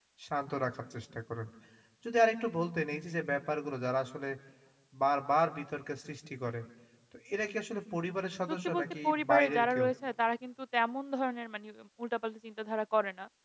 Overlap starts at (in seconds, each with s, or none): 8.7 s